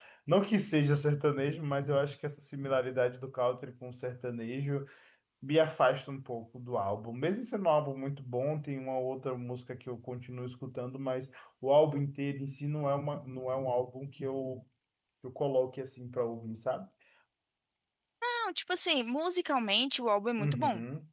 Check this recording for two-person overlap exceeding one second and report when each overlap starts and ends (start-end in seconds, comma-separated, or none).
none